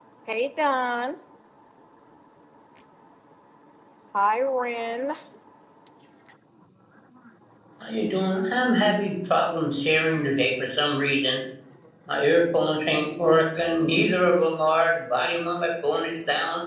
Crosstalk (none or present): none